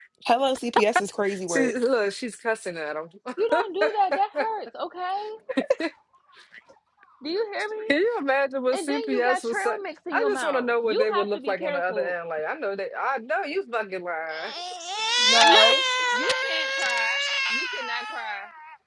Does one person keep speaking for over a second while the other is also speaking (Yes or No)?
Yes